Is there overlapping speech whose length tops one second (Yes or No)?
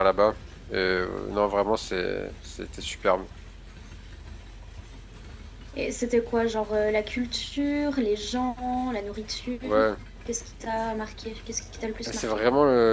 No